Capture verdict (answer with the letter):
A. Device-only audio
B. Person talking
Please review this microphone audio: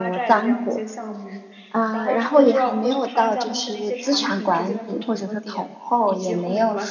B